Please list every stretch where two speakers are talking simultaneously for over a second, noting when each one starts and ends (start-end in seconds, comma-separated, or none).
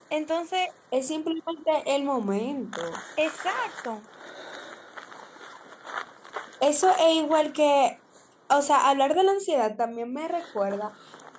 none